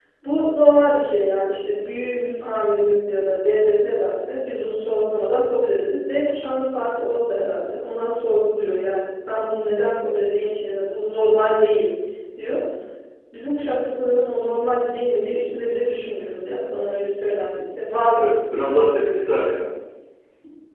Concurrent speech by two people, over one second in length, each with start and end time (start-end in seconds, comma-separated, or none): 18.2-19.5